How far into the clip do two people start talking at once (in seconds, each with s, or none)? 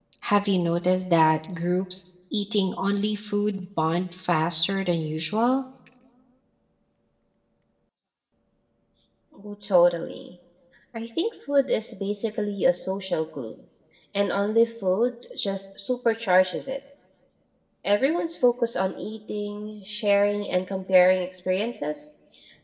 none